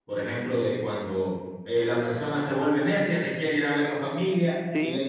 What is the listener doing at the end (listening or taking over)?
listening